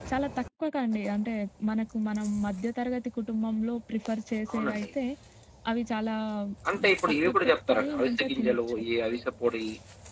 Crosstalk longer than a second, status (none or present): present